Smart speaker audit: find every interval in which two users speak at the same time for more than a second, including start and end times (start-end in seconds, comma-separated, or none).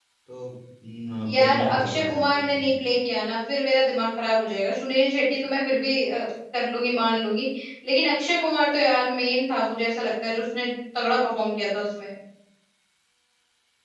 1.3-2.7